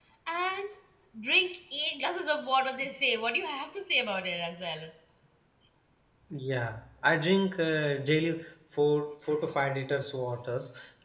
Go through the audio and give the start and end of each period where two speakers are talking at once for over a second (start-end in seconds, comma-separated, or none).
none